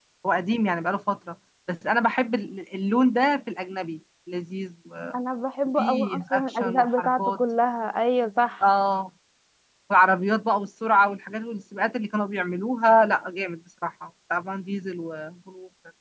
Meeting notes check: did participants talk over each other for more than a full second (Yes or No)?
Yes